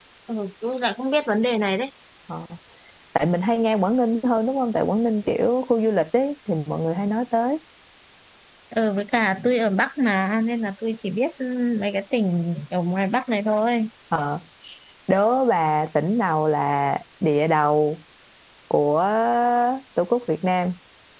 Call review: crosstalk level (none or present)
none